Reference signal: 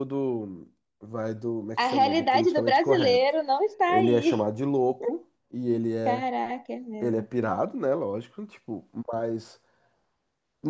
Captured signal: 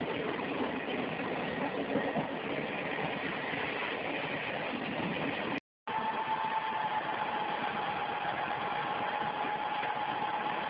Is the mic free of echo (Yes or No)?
Yes